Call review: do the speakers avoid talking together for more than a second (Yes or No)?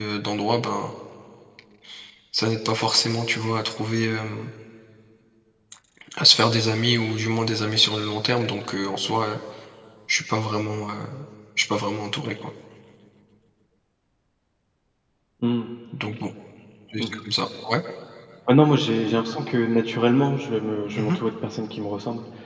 Yes